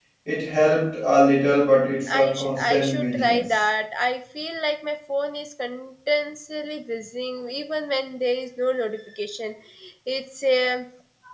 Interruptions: present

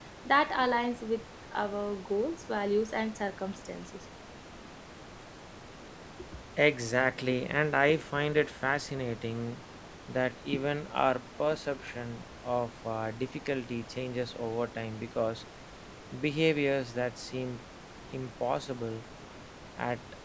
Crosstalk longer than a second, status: none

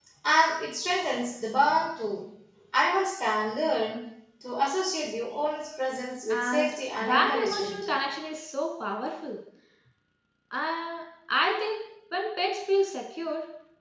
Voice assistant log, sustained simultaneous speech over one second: present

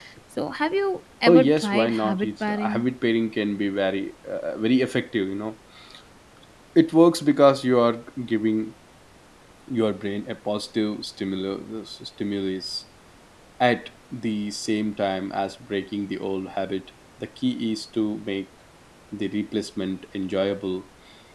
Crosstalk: present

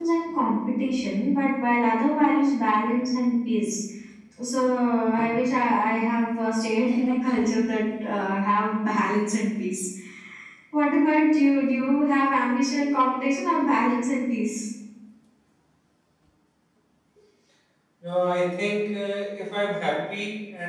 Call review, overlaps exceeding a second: none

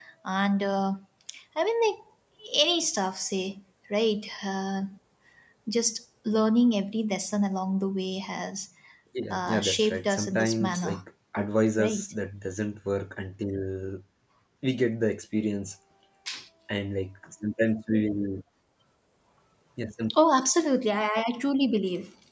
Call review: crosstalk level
present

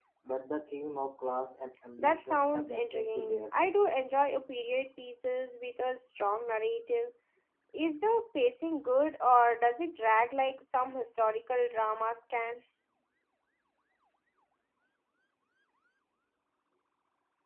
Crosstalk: present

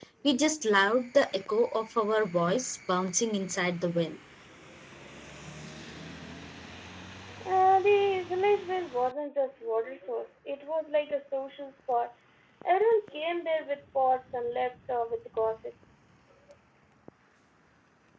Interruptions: none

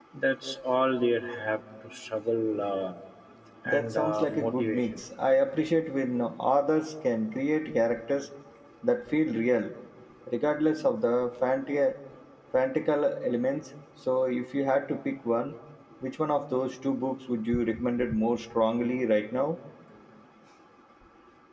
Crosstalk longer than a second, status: present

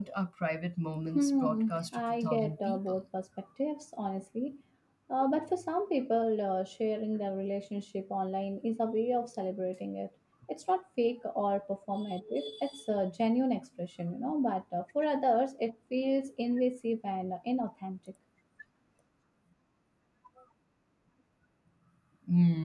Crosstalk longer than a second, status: present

